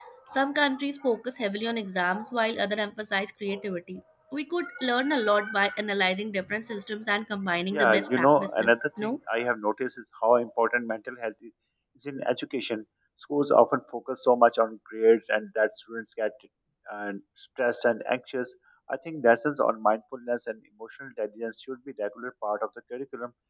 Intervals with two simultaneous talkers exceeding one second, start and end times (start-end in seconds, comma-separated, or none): 7.7-9.1